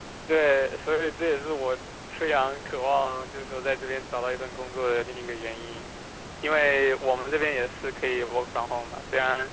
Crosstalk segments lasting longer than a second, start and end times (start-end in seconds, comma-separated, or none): none